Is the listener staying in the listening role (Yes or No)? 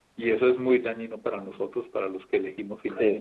No